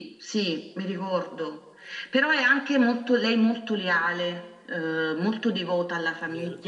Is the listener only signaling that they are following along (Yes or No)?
No